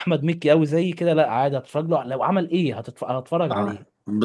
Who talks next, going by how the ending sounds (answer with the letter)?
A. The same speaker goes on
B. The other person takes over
B